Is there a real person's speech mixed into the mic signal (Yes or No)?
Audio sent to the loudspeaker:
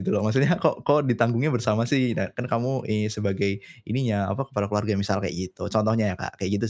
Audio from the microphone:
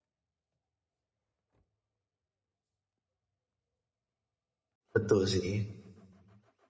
Yes